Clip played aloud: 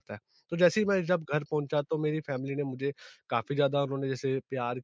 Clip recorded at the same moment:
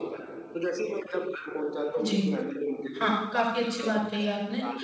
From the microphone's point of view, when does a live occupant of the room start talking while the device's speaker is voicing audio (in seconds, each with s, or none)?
2.0 s